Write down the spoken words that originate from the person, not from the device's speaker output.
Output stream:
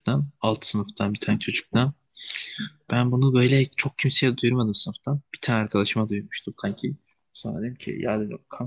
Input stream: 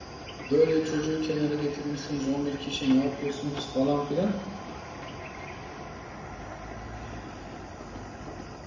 böyle çocuğu kenara getirmişsiniz 11 kişi ne yapıyorsunuz falan filan.

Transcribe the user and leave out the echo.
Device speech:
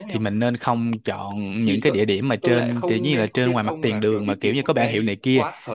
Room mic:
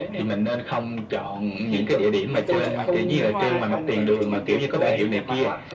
mình không chụp ảnh với hoa hết thì mình chụp ảnh đường phố cũng đẹp mà

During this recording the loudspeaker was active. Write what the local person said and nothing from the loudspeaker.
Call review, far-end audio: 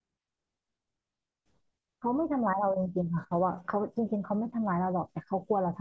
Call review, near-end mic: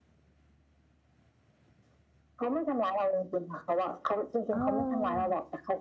อ๋อ

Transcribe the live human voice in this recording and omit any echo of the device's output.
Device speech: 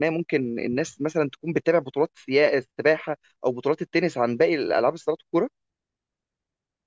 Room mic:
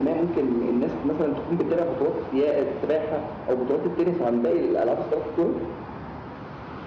none

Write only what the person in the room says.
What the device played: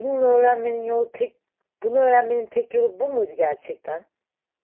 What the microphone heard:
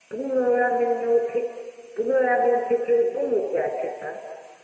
none

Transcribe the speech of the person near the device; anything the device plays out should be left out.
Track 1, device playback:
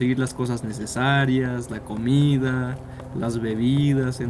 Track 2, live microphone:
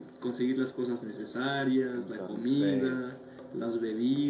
entonces...

